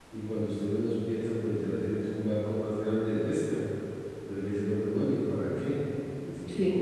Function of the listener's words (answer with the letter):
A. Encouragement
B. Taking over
A